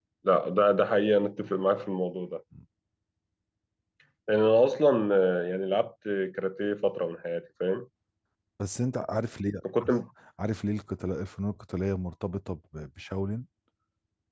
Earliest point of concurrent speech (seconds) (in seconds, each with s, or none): none